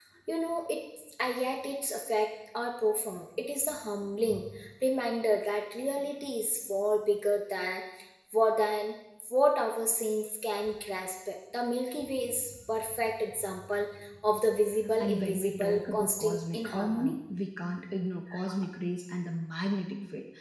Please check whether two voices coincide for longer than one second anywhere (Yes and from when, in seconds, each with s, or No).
Yes, from 15.0 s